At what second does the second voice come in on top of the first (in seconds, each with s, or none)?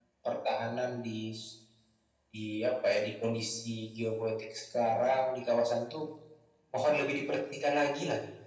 none